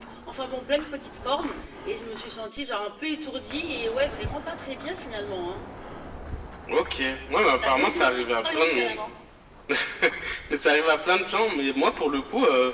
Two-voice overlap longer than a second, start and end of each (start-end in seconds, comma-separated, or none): 7.5-9.0